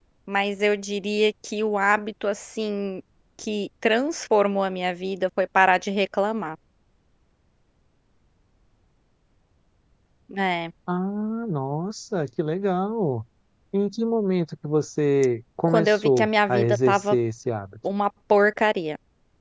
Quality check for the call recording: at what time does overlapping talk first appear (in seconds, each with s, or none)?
15.7 s